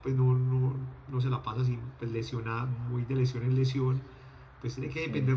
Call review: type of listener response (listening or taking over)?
listening